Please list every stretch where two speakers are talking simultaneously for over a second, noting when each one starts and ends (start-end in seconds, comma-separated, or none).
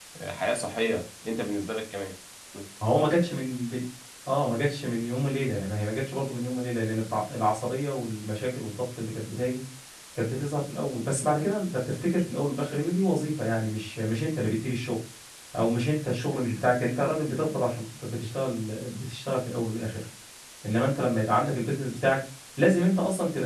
none